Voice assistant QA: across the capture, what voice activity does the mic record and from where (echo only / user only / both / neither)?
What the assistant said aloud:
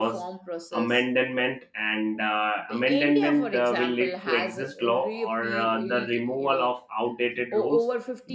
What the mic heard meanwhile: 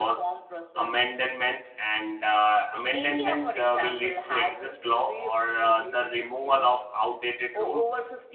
echo only